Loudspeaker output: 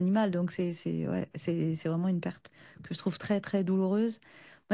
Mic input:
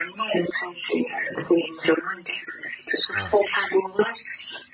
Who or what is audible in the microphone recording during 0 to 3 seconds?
echo only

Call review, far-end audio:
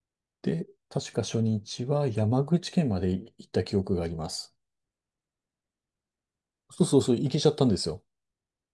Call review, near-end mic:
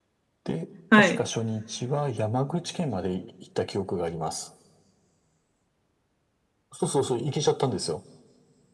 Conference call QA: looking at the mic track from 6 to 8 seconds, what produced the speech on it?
echo only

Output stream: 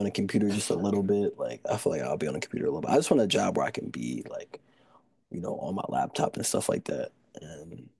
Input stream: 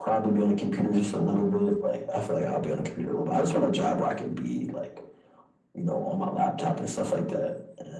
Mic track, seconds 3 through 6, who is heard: echo only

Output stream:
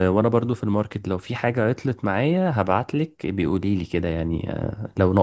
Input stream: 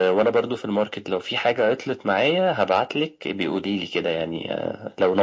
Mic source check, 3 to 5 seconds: echo only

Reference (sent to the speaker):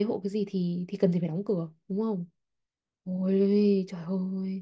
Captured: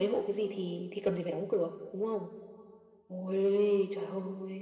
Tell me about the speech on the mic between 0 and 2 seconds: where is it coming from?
echo only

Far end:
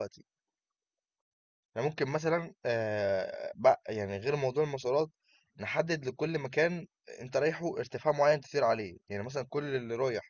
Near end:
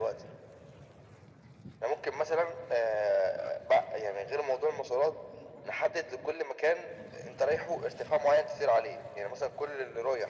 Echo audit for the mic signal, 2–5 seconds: echo only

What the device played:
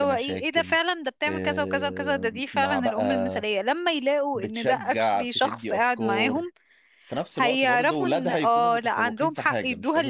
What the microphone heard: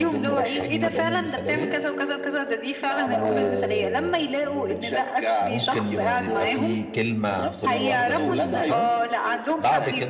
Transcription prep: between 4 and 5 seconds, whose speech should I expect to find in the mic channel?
both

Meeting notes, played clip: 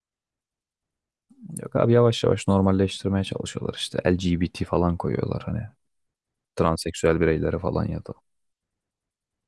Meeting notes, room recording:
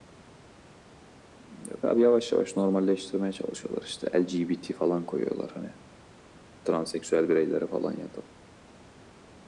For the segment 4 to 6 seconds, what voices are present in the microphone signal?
echo only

